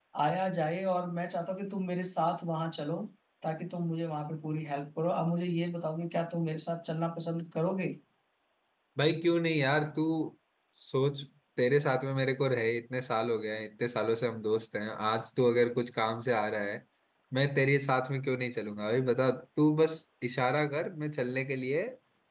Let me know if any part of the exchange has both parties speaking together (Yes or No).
No